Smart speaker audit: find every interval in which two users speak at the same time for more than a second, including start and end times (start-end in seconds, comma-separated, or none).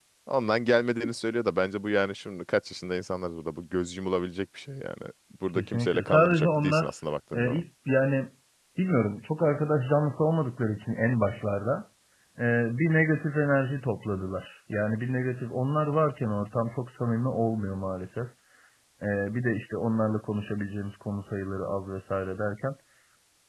5.6-6.9